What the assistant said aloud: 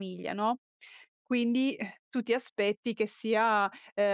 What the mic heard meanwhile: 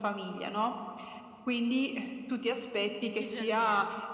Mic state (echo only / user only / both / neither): both